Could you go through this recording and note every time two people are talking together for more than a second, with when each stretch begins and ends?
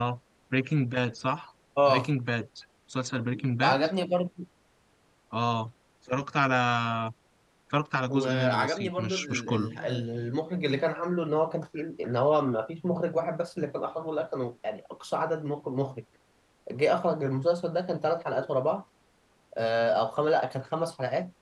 8.1-9.7

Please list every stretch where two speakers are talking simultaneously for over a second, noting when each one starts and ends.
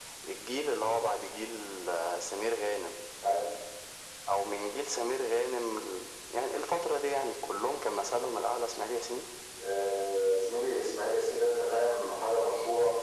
none

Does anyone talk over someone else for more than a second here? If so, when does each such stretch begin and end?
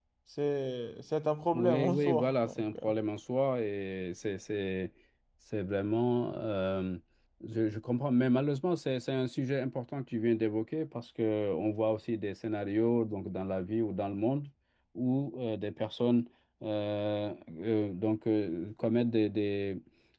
1.5-2.9

